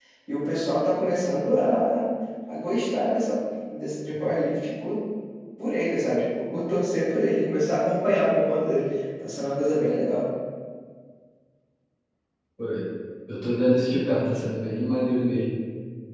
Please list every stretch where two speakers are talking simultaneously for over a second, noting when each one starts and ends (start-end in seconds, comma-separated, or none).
none